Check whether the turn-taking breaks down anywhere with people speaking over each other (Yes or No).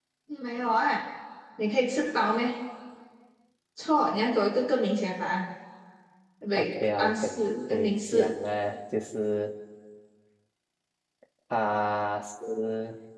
Yes